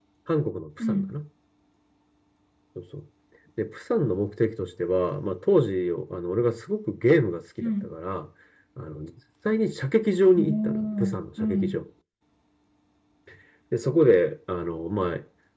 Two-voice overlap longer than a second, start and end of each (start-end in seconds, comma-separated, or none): 10.4-11.8